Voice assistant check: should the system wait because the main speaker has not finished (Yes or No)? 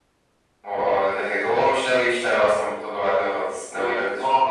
No